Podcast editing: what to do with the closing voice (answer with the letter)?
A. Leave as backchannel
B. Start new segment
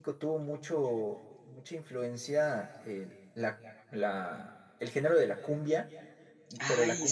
A